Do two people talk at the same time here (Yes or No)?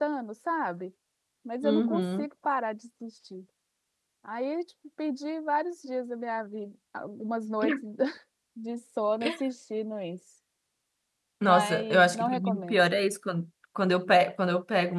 Yes